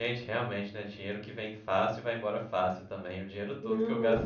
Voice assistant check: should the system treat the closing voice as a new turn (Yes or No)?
No